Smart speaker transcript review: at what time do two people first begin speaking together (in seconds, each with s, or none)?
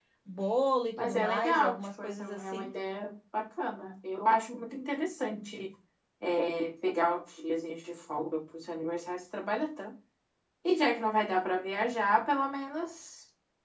1.0 s